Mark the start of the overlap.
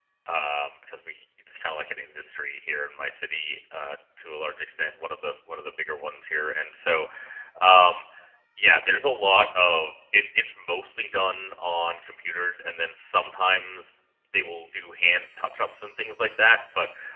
none

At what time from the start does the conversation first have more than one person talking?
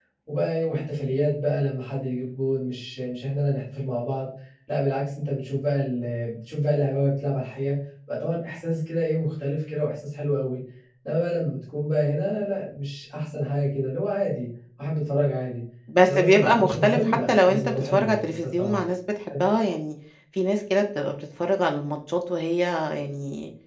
16.1 s

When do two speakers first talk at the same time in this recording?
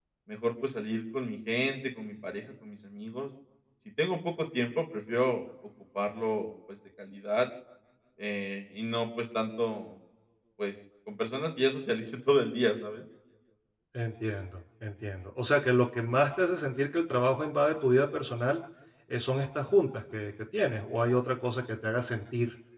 none

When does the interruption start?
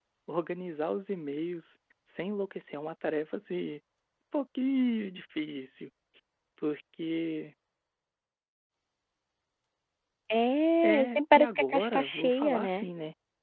10.8 s

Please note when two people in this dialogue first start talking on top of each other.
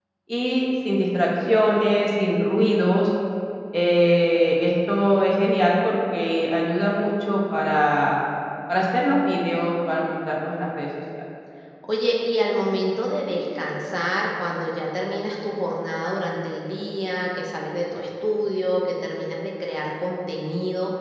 none

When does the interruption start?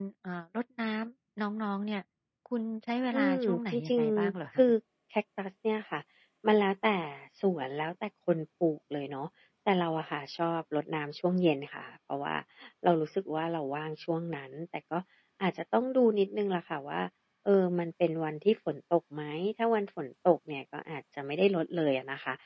3.1 s

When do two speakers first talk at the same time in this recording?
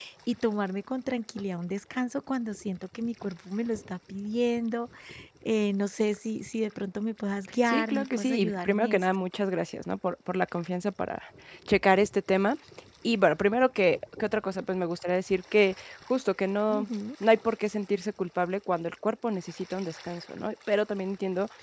7.7 s

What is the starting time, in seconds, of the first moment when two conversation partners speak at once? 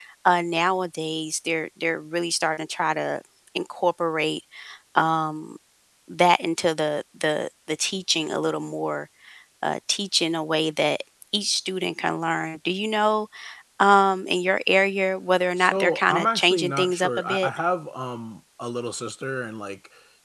15.6 s

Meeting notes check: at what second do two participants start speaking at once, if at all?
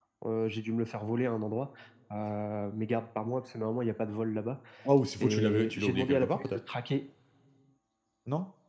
5.2 s

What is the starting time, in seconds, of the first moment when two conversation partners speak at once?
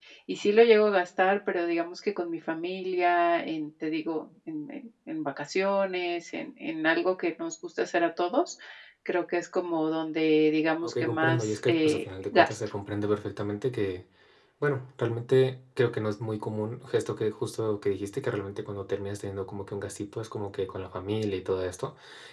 10.8 s

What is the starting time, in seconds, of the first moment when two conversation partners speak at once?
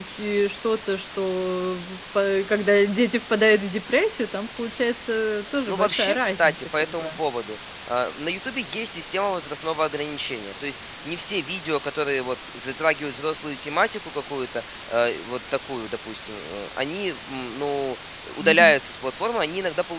5.7 s

